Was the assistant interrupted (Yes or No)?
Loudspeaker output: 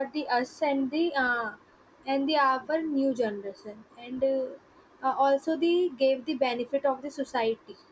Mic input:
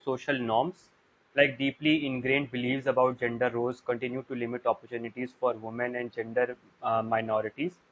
Yes